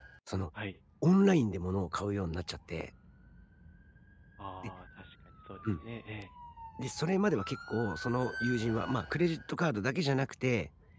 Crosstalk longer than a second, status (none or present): none